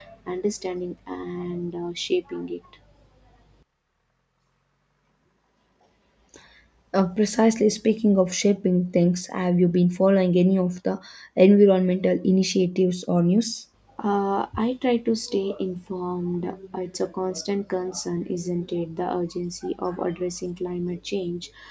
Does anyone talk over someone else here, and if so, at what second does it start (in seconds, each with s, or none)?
none